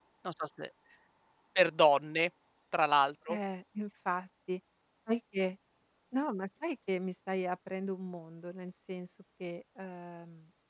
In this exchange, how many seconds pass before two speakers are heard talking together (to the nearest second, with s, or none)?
none